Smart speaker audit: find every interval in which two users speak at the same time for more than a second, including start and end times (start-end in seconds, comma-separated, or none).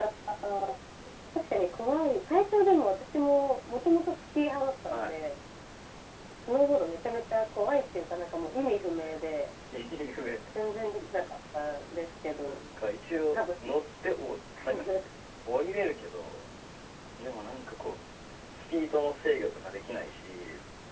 none